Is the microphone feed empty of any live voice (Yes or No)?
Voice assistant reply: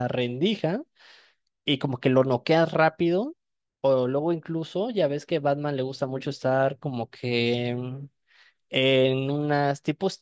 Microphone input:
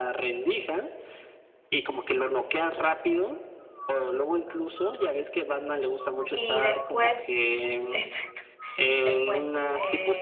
No